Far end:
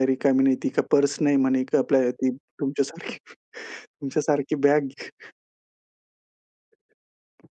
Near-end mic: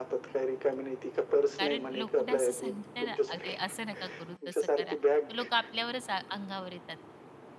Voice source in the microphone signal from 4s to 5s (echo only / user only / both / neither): both